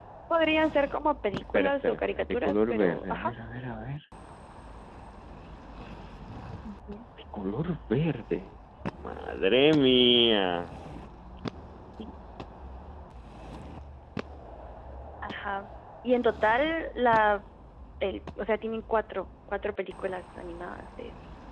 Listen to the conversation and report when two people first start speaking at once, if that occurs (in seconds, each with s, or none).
1.5 s